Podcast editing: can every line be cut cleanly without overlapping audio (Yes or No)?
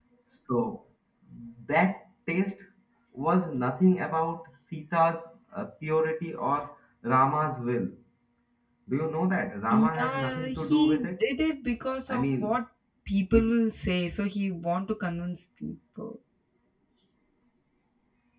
No